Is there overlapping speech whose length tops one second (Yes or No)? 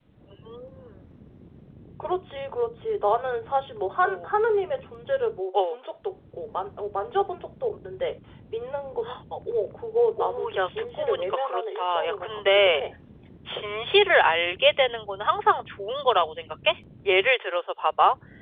Yes